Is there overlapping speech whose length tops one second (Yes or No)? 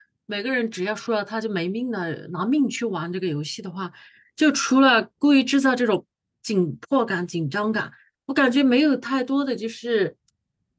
No